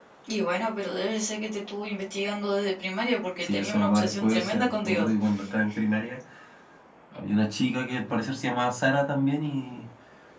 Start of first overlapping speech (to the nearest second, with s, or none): 3 s